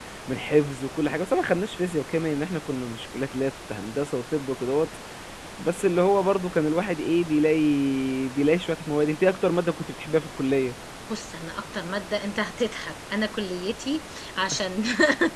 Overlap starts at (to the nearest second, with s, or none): none